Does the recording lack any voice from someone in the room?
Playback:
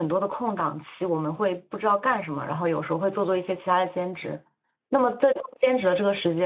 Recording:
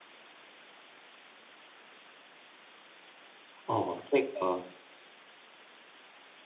No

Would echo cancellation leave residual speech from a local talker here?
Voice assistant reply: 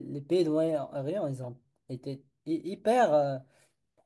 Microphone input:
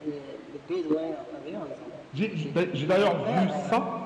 Yes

